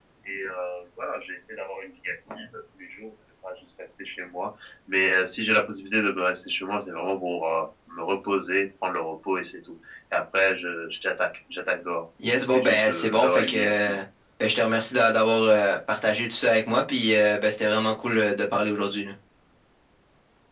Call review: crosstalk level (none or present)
present